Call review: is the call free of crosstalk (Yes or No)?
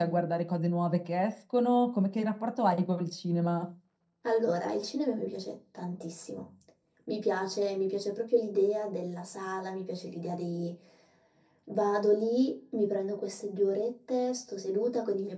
Yes